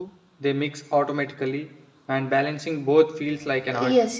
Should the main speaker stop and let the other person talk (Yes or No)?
Yes